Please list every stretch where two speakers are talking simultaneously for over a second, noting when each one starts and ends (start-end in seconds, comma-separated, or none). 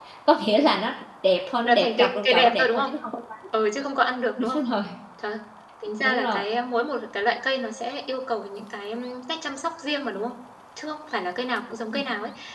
1.6-2.9